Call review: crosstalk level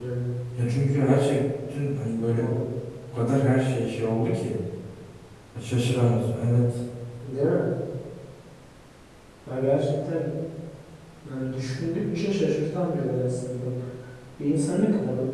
none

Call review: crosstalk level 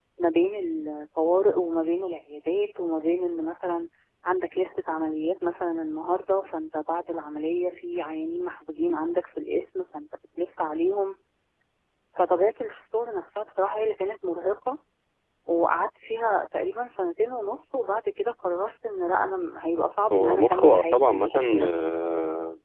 present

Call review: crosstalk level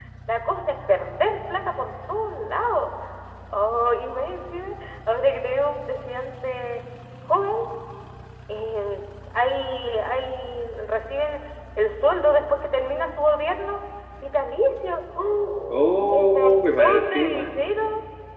present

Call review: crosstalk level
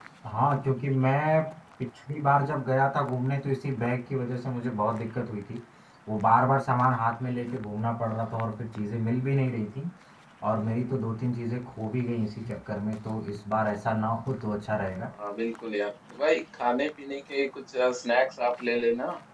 none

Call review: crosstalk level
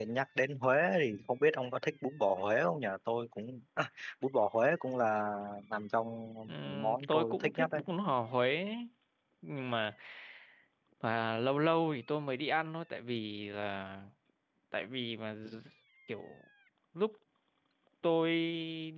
present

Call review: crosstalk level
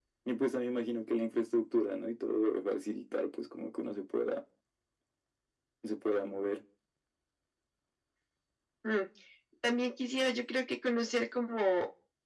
none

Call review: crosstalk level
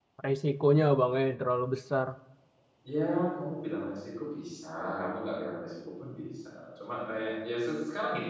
none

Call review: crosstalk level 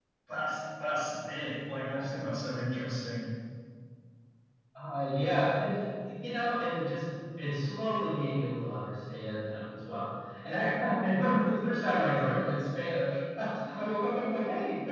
none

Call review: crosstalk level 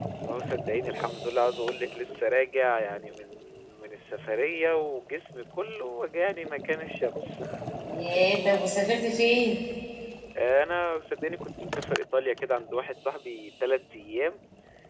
none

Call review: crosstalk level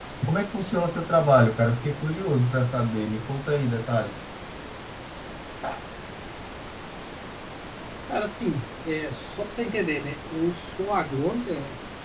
none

